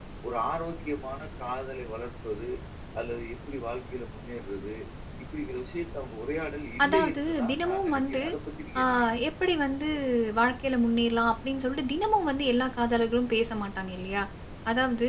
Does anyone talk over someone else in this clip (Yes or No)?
Yes